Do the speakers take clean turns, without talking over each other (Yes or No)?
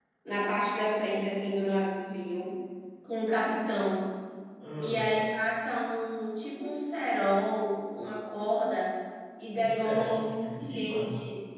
No